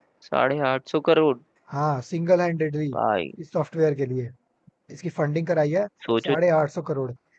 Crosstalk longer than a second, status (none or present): none